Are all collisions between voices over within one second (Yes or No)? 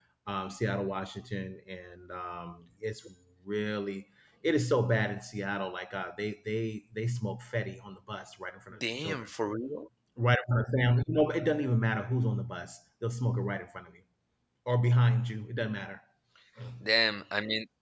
Yes